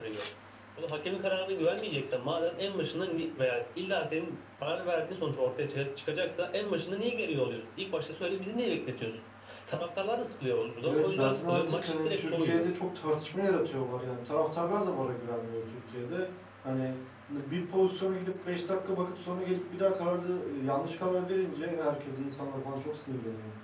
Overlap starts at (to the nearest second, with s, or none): 11 s